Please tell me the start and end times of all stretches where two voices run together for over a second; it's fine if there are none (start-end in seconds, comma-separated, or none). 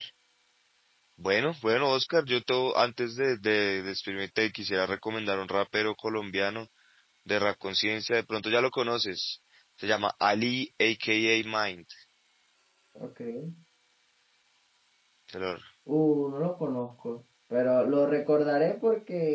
none